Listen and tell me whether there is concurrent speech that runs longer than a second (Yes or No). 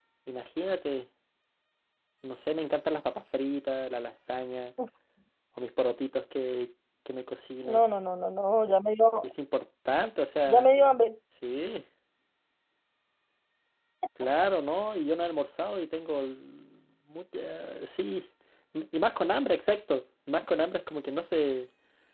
No